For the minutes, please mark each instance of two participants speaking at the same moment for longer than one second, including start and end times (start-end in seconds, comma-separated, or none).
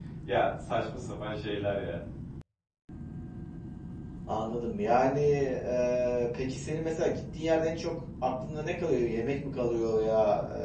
none